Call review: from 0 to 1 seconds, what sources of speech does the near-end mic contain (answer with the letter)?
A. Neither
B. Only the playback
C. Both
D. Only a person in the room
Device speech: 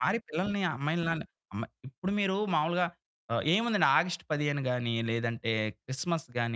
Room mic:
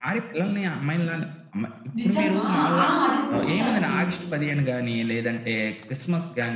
B